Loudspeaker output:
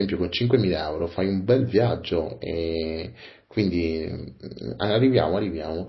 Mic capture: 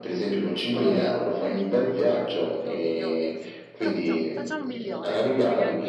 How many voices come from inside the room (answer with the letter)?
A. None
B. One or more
B